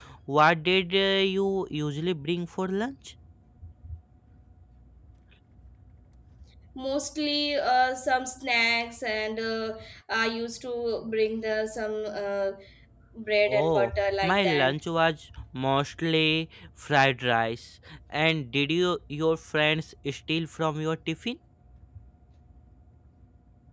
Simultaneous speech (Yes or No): Yes